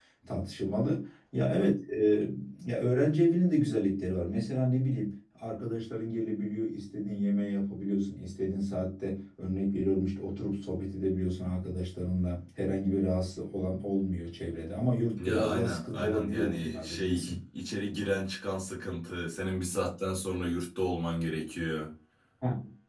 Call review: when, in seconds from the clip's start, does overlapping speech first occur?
15 s

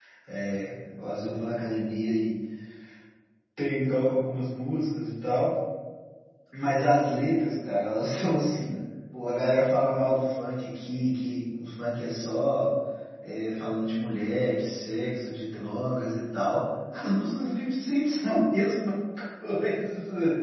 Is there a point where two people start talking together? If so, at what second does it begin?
none

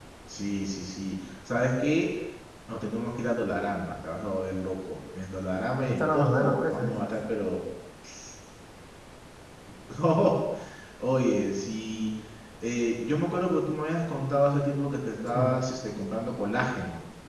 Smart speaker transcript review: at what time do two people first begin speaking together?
6 s

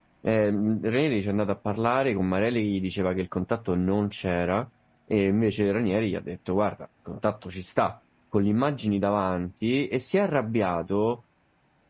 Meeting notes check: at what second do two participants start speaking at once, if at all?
none

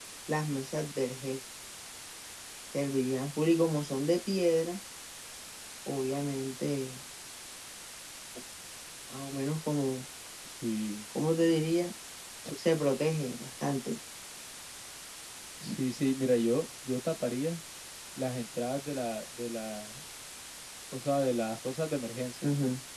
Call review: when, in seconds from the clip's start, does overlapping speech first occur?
none

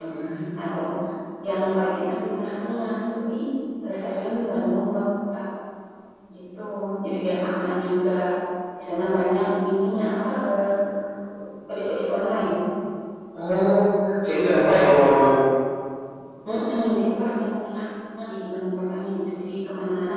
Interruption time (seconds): none

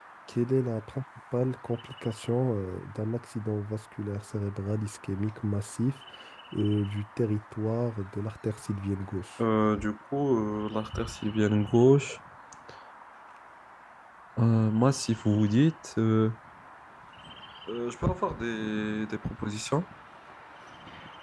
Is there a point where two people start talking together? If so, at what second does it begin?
none

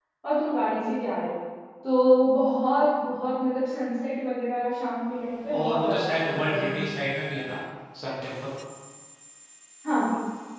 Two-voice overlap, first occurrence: 6 s

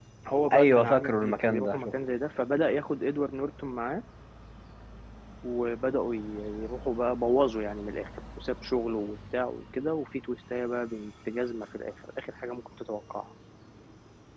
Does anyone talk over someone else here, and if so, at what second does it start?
1 s

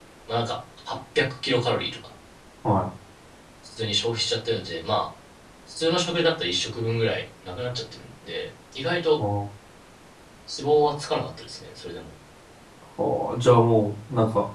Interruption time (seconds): none

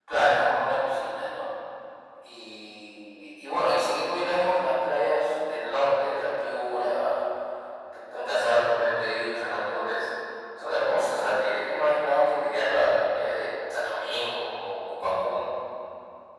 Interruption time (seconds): none

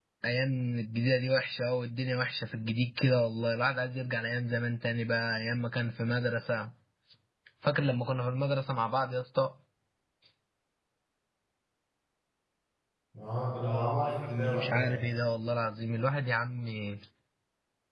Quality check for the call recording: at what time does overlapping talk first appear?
14 s

